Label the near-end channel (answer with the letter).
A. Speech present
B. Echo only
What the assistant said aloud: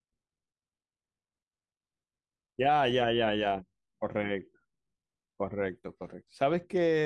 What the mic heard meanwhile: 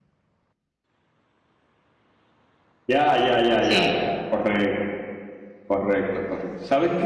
A